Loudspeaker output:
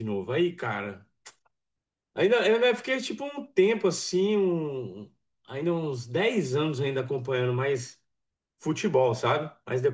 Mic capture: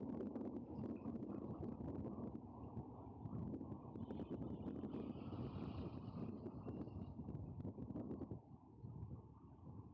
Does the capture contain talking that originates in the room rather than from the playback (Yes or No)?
No